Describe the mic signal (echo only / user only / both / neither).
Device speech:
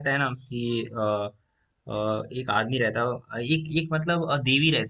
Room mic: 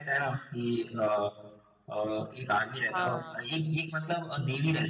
both